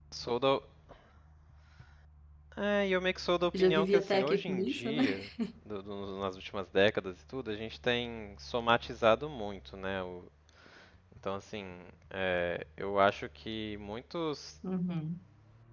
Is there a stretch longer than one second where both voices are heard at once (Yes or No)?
Yes